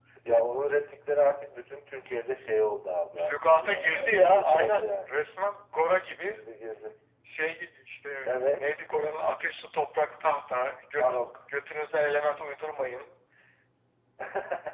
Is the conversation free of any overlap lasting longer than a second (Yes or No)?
No